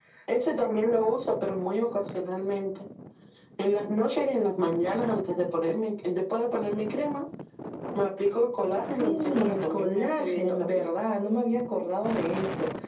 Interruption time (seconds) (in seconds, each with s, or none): 9.0 s